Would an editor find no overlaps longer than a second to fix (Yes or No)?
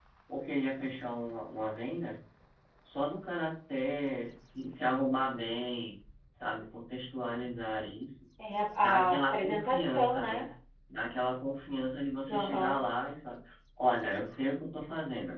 No